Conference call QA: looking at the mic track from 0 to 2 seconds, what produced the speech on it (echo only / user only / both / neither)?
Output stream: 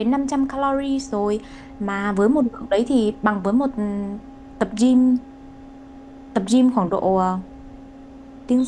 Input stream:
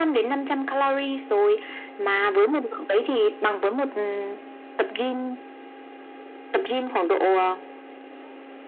echo only